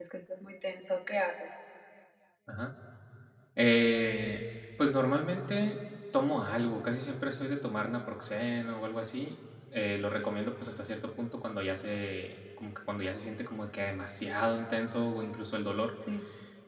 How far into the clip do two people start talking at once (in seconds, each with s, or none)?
none